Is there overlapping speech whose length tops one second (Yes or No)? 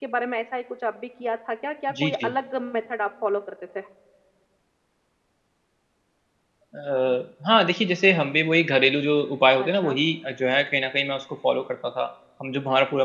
No